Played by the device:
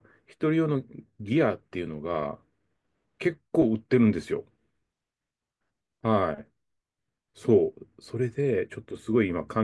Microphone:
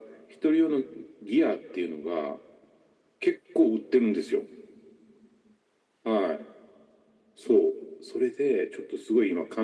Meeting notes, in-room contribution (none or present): none